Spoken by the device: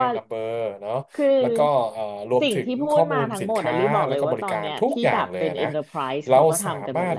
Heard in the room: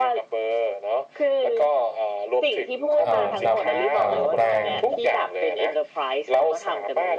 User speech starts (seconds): 3 s

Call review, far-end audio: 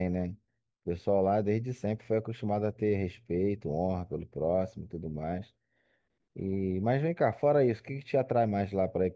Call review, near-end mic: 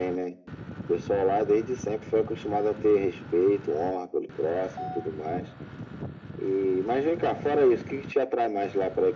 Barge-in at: none

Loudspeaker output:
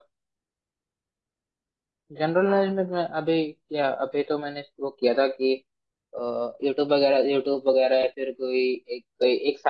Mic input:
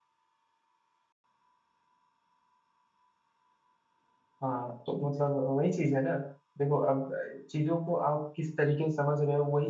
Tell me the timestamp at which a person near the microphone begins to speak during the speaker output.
4 s

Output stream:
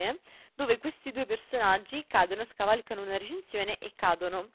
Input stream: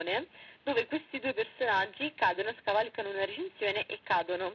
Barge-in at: none

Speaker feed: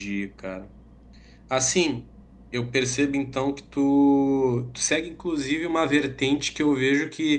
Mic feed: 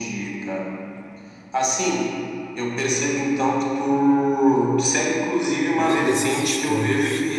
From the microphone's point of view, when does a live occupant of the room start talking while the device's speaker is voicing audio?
6 s

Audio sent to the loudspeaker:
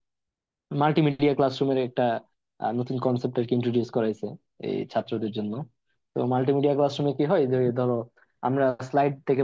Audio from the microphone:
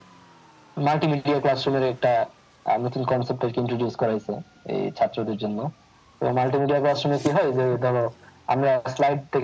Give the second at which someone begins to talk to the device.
none

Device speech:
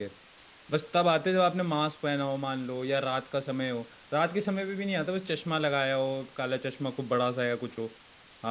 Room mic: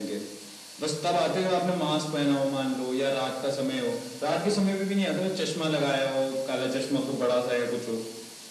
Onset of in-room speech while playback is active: none

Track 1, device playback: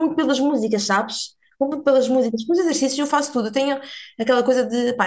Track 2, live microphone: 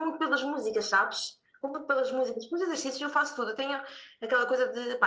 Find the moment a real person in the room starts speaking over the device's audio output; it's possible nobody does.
none

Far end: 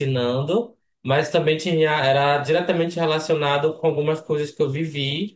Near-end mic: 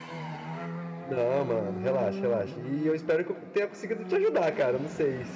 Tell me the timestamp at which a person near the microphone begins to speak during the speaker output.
1 s

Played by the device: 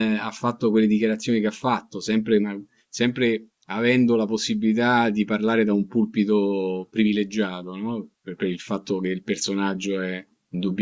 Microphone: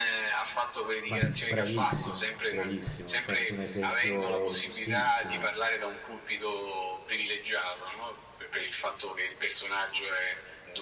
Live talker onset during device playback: 1 s

